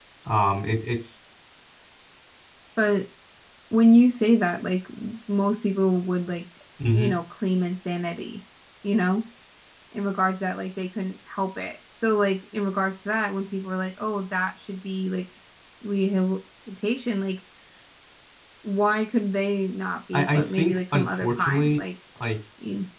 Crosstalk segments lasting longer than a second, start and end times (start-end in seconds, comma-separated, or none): 20.1-21.8